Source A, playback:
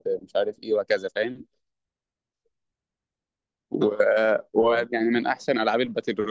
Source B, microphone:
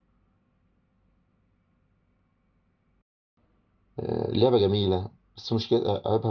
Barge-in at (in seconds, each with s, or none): 4.0 s